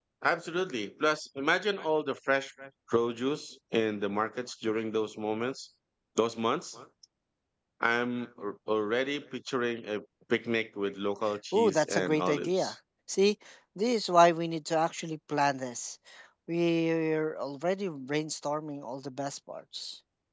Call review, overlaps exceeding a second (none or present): present